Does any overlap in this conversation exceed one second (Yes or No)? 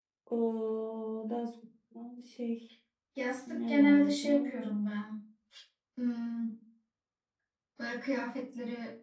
Yes